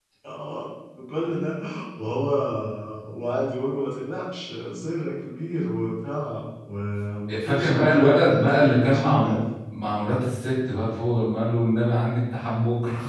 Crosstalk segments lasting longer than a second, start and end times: 7.4-9.4

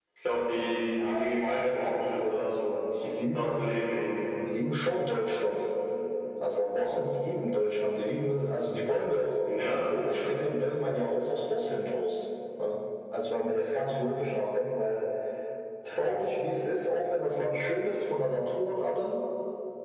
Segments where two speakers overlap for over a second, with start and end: 1.0-2.5

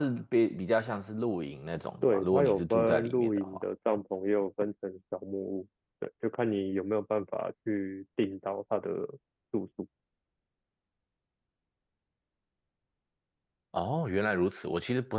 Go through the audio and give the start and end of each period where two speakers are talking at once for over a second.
2.0-3.6

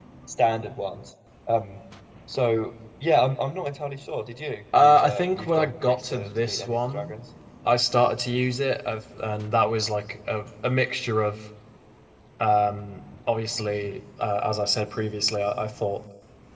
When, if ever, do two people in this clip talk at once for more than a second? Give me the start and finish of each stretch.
4.8-7.1

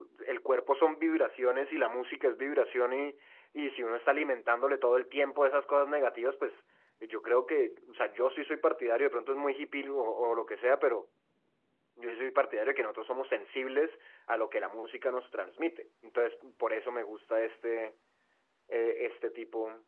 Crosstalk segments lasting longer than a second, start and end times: none

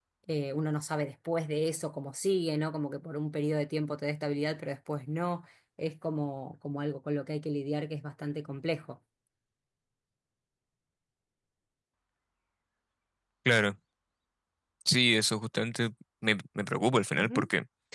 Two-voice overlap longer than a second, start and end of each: none

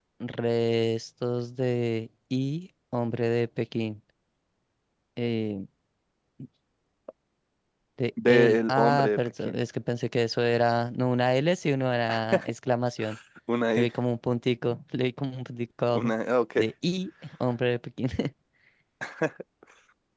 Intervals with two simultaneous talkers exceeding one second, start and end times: 8.3-9.6

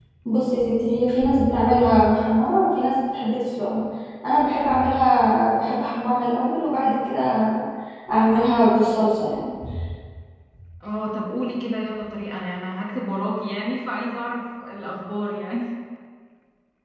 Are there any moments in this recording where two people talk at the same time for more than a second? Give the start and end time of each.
none

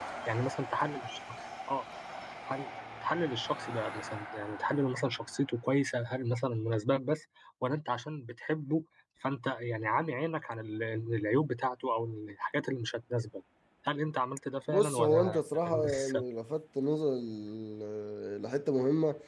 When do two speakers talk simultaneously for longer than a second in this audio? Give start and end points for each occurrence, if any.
14.7-16.2

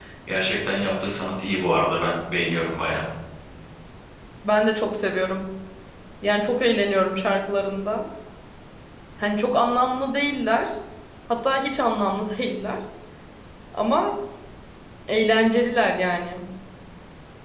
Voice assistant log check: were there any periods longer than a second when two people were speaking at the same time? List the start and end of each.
none

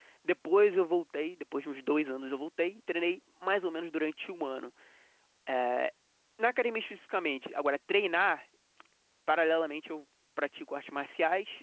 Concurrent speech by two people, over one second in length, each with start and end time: none

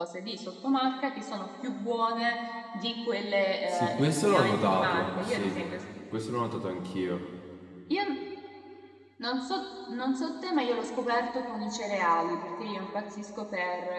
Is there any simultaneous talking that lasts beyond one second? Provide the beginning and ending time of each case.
3.7-5.6

